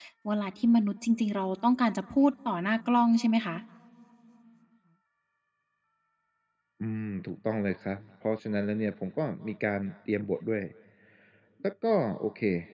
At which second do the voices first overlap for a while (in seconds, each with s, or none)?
none